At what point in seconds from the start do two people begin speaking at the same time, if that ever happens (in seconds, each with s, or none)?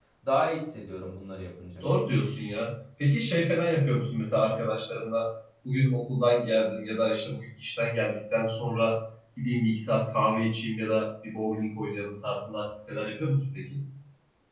none